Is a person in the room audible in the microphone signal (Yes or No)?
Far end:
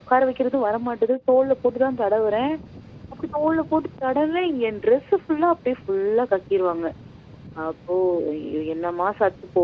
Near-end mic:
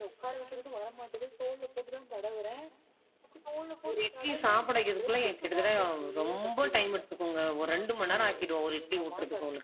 Yes